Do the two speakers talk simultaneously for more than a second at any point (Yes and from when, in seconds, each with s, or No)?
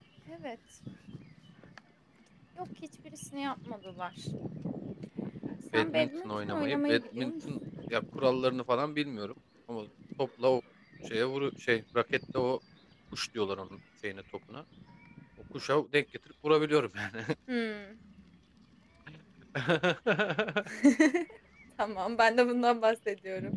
Yes, from 5.7 s